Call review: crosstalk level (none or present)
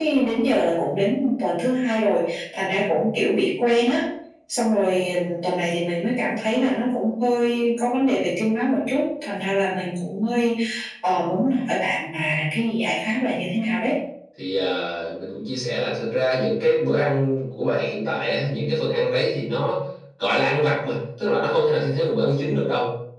none